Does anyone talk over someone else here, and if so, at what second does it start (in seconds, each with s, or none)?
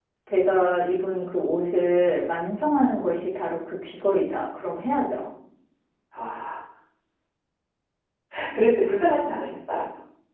none